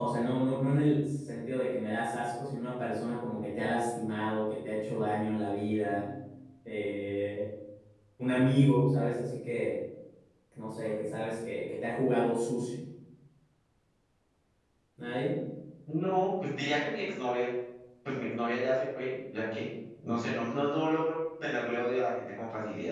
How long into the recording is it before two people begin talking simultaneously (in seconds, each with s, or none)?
none